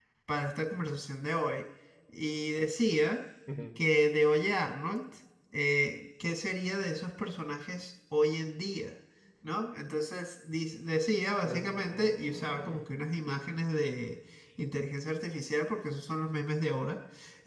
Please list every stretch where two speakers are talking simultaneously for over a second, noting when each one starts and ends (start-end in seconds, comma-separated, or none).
11.4-12.8